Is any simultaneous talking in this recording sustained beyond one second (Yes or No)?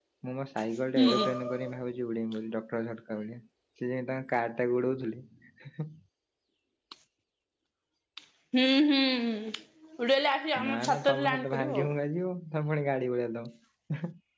Yes